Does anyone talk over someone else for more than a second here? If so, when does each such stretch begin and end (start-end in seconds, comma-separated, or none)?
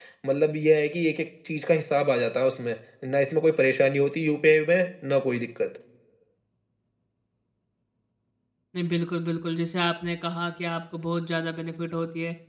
none